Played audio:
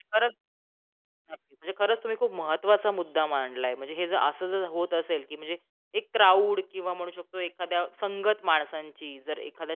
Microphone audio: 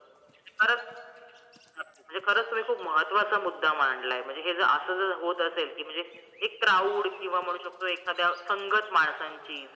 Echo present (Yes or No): Yes